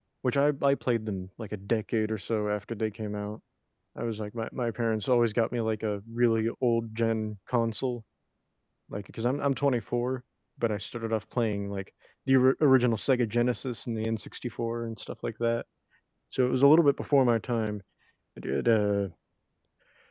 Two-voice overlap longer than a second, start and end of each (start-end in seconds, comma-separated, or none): none